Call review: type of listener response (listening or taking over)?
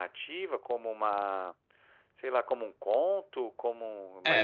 taking over